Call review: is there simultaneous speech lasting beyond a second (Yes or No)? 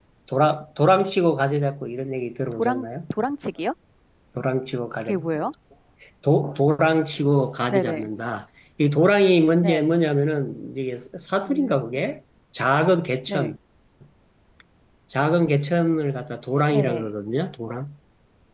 No